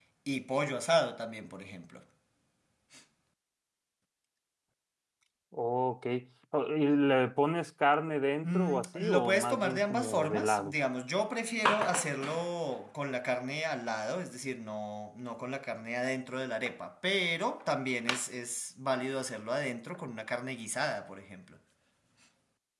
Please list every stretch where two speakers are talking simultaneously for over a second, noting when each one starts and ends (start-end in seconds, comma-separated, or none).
8.4-10.7